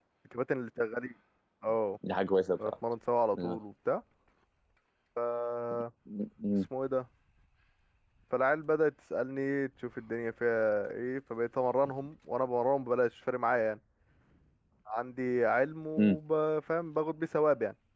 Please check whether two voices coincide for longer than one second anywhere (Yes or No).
No